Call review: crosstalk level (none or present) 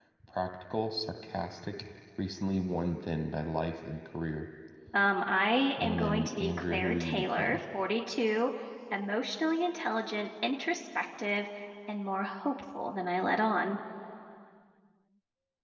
present